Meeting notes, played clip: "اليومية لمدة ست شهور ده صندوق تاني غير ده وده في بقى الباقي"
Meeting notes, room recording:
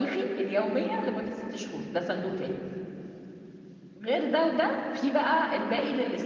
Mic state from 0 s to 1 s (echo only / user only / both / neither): echo only